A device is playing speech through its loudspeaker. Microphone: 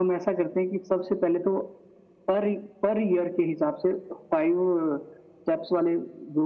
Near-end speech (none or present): none